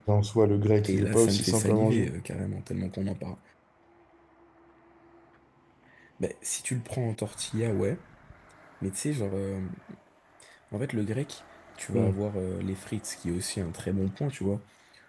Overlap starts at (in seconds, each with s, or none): 0.8 s